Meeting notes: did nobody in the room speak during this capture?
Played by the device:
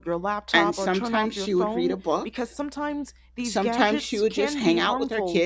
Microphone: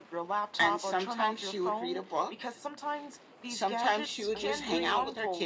No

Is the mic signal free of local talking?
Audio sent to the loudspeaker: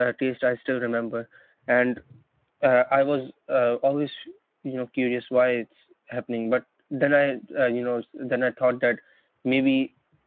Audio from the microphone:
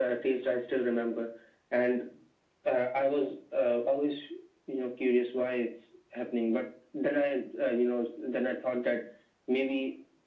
Yes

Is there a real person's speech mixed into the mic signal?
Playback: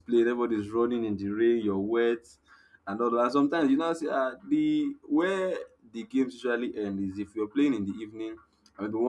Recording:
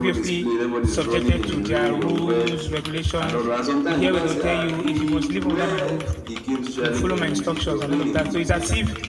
Yes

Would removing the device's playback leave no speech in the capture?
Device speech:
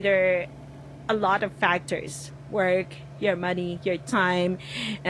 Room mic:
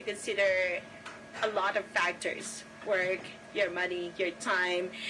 Yes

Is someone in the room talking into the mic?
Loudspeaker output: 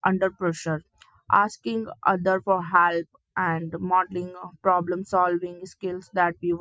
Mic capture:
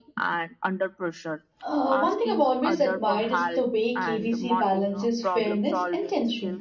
Yes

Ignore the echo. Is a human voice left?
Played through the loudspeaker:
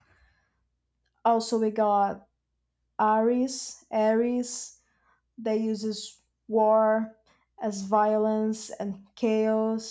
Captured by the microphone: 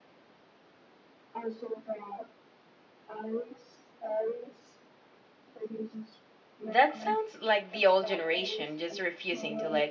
Yes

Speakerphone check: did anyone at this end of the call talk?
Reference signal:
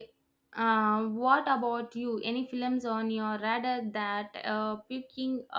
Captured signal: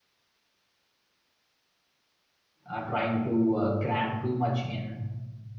Yes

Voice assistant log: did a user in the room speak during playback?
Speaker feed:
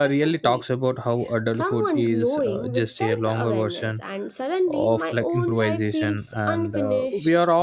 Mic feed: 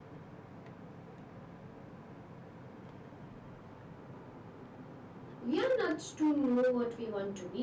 Yes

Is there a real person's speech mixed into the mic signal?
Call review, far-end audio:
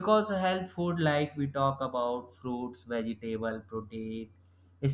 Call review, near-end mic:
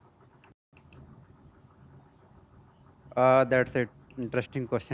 Yes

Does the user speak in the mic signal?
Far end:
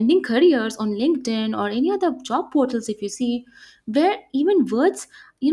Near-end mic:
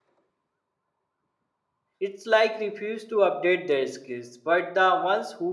Yes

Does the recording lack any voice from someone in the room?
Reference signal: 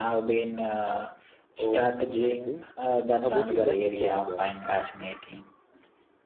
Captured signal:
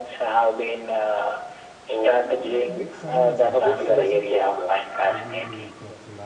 No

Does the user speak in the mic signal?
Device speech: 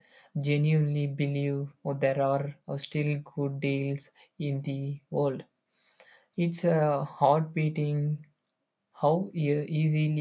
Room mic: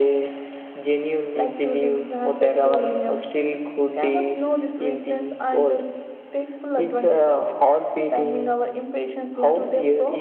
Yes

